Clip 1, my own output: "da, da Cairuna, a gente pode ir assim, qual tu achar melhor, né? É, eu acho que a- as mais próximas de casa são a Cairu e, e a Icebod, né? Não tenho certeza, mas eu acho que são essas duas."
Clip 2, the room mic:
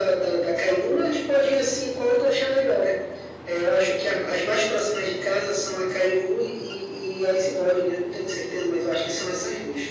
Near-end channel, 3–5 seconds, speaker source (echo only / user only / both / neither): echo only